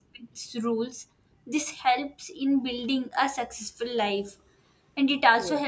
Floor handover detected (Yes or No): No